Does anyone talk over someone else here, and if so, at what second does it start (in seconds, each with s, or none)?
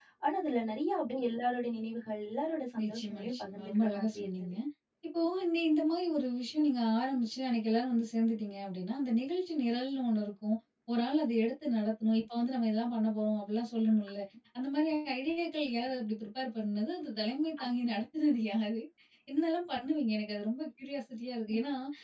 2.7 s